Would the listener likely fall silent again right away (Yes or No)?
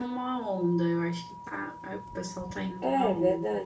No